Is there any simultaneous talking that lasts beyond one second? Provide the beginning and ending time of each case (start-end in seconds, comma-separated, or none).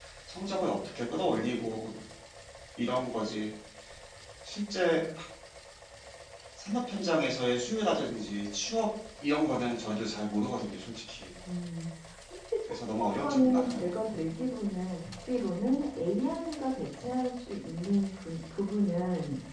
12.7-13.9